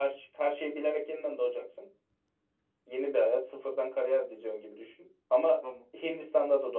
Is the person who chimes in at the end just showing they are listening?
Yes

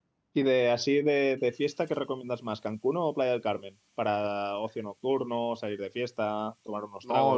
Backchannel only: No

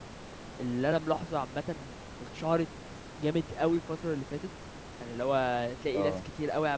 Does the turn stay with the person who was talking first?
Yes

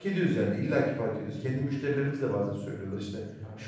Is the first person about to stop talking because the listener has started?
No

